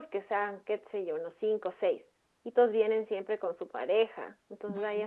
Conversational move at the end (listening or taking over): listening